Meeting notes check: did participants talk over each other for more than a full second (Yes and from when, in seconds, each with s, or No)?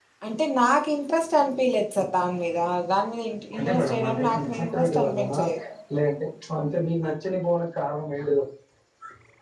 Yes, from 3.6 s